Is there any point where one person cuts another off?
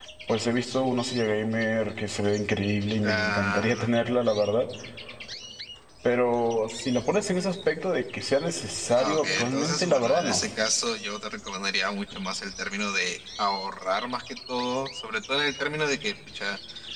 Yes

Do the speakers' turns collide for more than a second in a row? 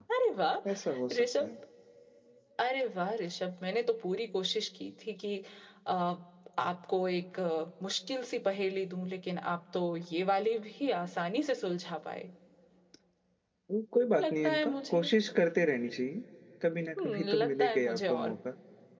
Yes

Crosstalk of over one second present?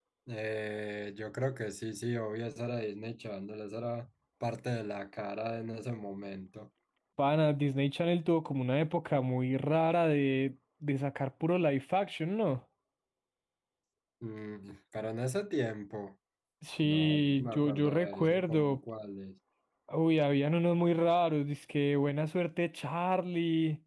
Yes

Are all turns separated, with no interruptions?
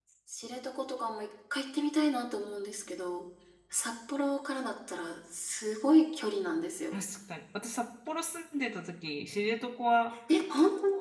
Yes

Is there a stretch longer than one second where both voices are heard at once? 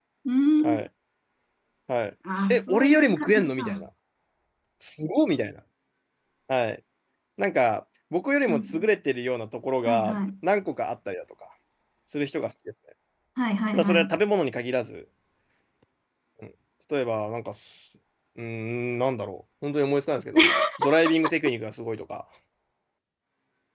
Yes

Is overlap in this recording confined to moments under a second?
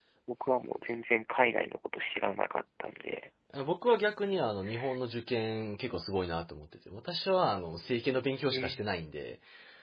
Yes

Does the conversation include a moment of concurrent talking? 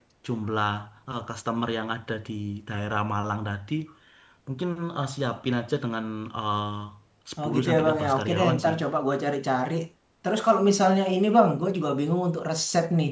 Yes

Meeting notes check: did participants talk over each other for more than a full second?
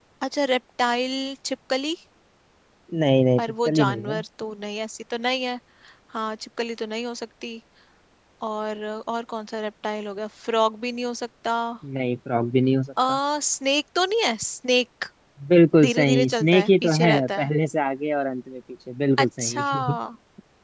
Yes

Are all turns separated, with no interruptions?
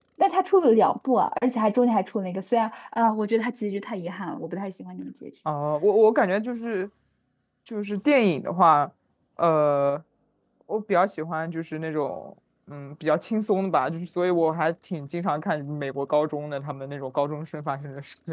Yes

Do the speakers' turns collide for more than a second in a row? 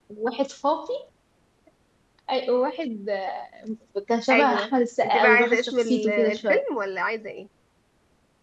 Yes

